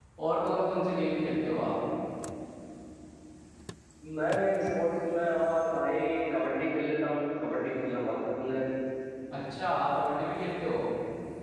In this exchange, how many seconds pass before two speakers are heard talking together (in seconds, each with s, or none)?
none